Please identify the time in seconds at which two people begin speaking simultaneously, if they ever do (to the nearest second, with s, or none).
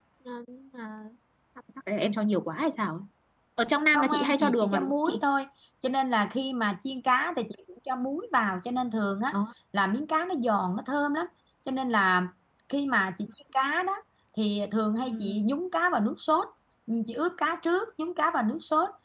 4 s